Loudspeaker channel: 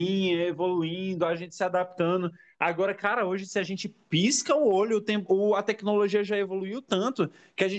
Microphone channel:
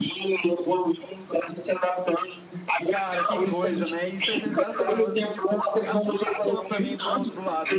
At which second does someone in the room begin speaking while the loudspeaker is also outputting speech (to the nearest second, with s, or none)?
3 s